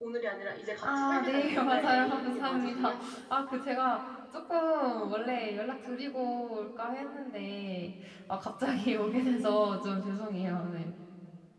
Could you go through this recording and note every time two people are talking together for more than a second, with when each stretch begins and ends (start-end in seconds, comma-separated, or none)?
0.8-2.9